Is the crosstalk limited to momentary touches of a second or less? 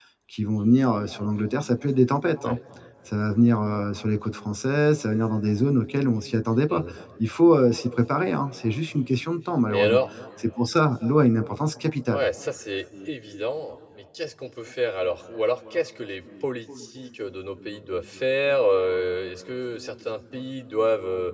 Yes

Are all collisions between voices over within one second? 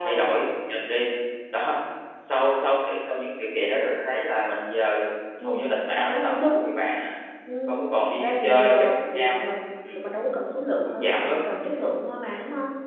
No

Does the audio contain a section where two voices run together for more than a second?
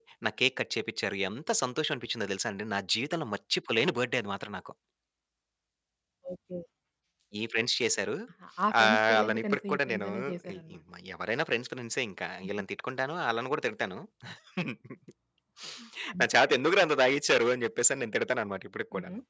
Yes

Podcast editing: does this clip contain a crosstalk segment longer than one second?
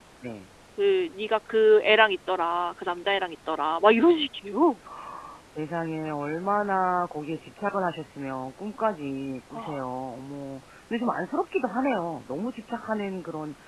No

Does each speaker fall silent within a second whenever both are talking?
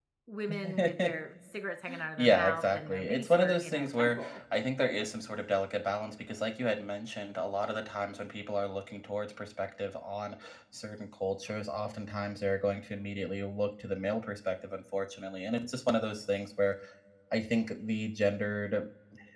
No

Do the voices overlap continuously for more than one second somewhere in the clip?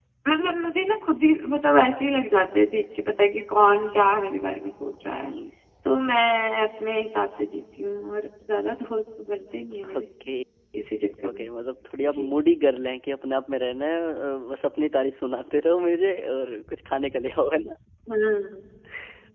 No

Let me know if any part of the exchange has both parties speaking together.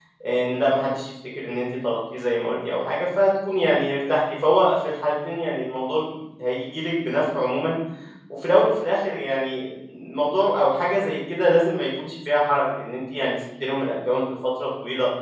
No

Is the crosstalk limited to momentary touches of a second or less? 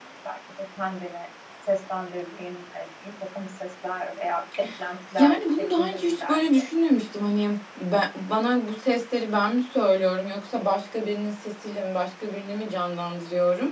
No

